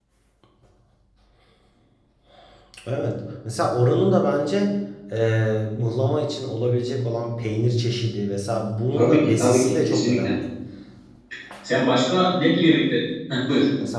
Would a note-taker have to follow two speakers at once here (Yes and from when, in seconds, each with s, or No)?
Yes, from 8.9 s